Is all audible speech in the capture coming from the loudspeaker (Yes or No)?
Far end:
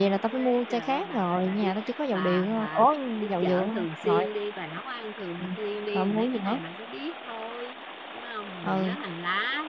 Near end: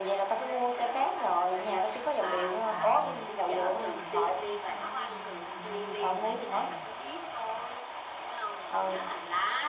No